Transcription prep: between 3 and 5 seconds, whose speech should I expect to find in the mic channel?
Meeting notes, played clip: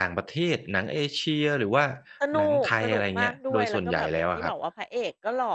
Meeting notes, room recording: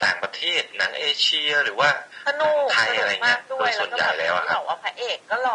echo only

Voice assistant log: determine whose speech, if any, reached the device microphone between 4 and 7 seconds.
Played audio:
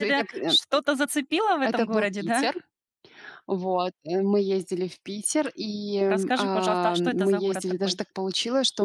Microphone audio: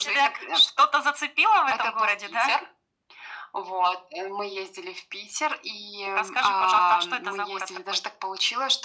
echo only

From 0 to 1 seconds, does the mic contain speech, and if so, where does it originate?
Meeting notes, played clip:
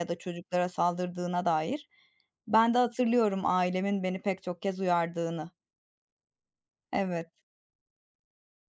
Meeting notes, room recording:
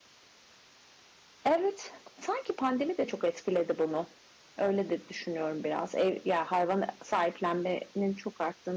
neither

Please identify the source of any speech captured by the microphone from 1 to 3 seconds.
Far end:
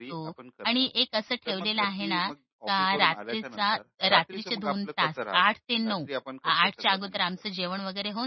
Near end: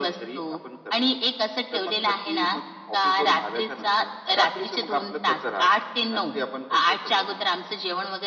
echo only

